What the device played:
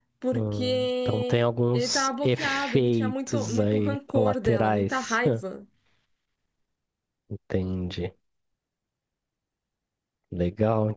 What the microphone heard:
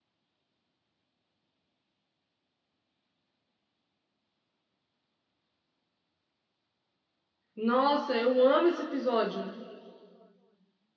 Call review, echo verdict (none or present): none